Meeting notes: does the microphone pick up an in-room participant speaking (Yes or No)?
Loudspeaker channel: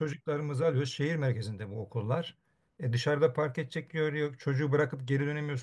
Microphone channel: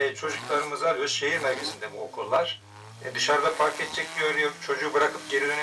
No